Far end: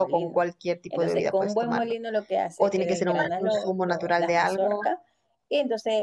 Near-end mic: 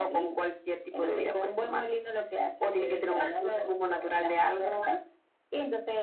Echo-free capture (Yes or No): No